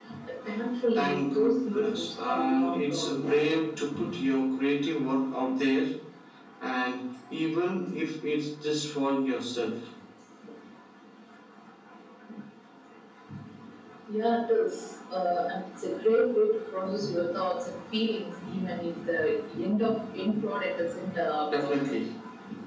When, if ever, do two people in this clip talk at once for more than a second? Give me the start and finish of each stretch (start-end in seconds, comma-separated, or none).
0.9-3.1